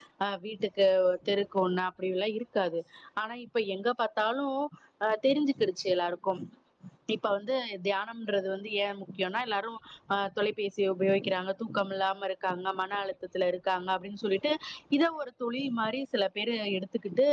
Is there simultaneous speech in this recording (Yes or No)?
No